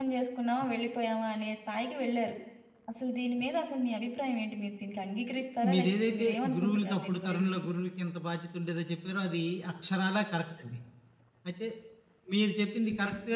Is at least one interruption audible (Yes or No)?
Yes